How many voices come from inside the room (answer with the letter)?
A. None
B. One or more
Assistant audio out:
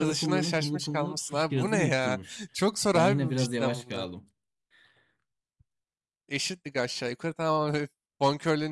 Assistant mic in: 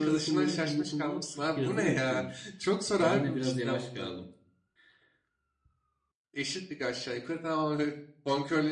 A